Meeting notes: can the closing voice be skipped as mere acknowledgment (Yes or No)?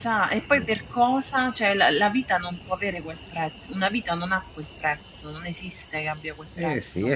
No